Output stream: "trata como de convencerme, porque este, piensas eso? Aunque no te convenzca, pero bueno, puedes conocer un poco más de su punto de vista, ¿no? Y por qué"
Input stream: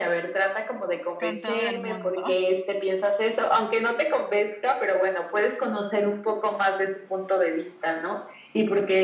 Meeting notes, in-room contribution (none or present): present